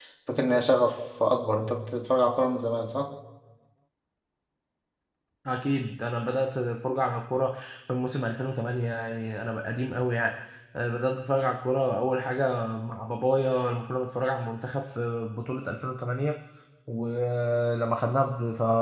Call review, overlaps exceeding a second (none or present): none